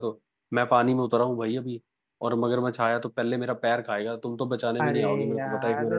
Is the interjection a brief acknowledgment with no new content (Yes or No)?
No